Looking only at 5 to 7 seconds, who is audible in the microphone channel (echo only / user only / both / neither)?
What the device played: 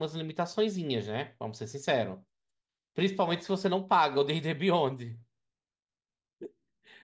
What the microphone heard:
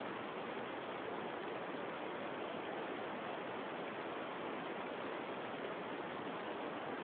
neither